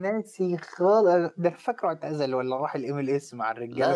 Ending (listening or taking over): taking over